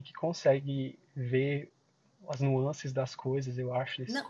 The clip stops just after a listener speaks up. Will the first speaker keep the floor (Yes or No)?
No